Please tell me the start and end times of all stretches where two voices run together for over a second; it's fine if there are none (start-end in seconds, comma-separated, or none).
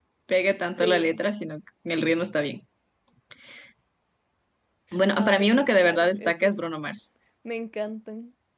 5.1-6.5